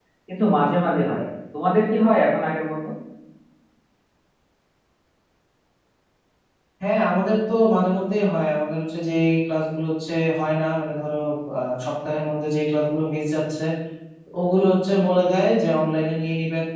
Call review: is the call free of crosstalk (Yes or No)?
Yes